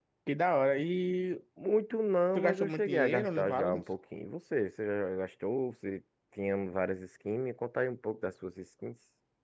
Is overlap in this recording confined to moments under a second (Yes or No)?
No